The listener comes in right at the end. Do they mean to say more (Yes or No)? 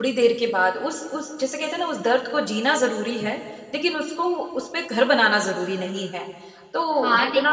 Yes